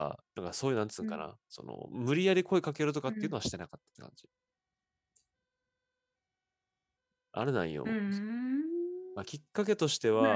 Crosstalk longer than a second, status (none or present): none